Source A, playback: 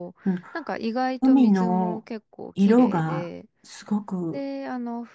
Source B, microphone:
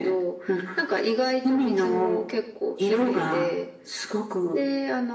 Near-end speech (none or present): none